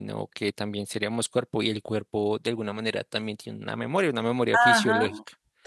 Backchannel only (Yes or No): No